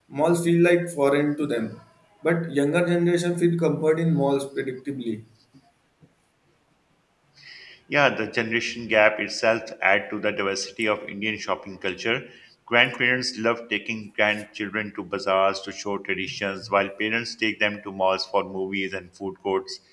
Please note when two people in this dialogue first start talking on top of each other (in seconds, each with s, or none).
none